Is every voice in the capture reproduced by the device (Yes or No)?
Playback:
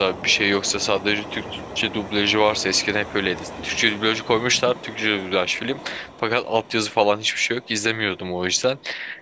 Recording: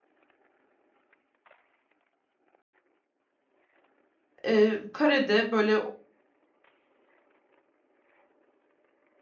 No